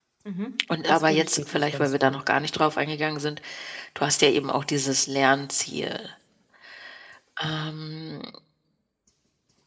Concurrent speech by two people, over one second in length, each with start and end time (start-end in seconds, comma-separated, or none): 0.9-2.2